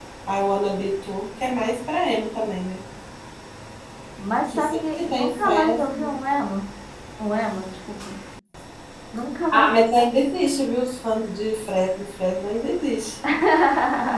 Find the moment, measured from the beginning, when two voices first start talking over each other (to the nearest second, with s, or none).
5 s